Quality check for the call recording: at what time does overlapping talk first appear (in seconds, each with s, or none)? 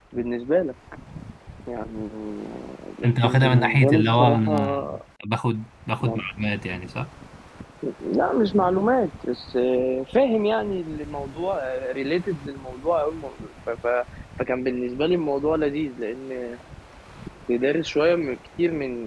3.0 s